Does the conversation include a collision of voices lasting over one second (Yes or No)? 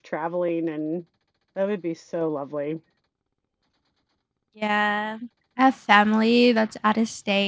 No